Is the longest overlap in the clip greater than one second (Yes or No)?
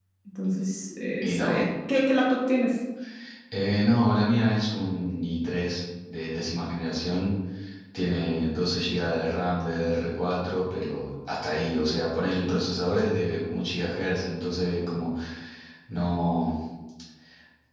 No